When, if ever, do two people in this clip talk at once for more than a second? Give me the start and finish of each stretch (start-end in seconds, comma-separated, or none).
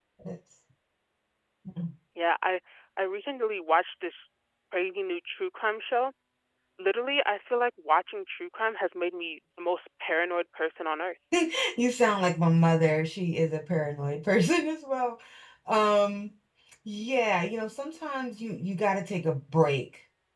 none